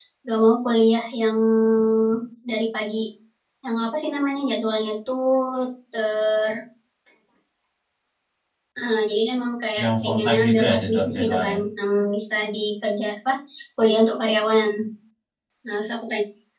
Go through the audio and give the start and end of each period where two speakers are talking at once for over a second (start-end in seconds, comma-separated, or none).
9.8-11.6